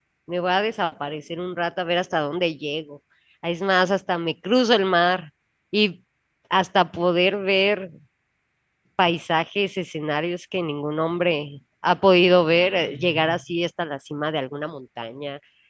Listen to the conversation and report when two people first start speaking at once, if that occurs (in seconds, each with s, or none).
none